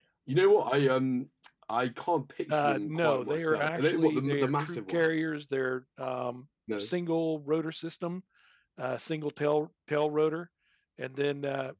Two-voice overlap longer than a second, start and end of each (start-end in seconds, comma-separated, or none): 2.5-5.2